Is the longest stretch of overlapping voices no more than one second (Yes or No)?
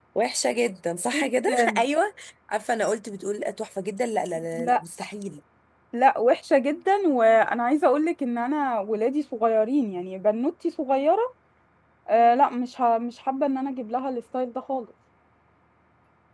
Yes